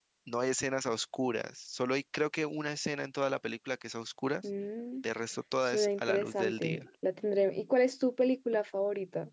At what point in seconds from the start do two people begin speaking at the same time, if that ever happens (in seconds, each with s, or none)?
5.6 s